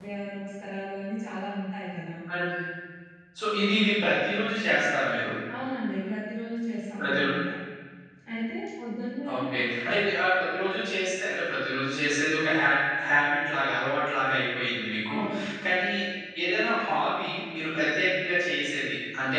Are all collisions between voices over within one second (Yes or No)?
Yes